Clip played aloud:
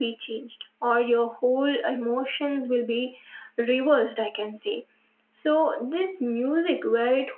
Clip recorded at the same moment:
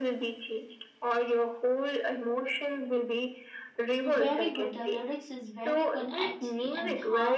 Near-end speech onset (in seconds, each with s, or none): 4.0 s